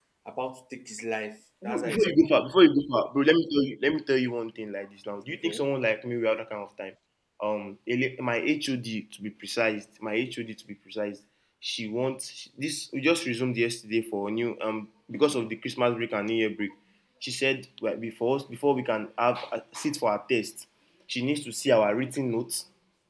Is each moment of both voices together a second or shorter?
Yes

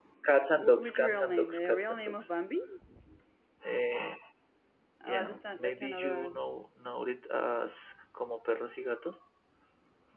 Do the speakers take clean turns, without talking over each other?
No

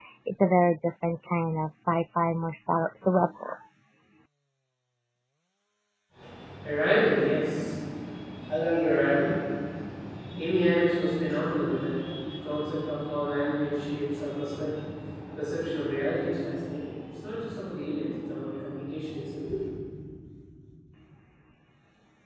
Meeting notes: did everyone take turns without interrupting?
Yes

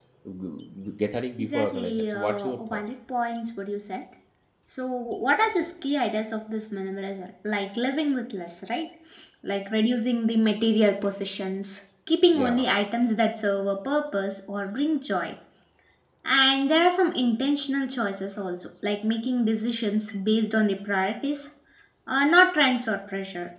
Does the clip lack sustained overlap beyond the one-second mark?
No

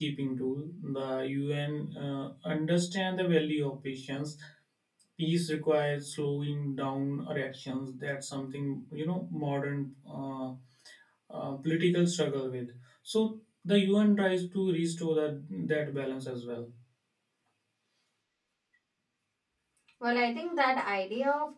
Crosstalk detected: No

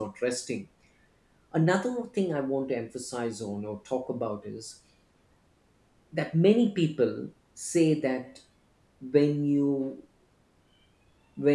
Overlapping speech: No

